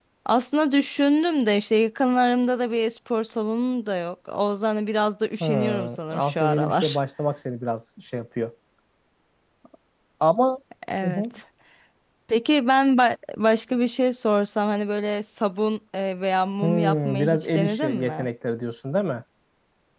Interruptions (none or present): present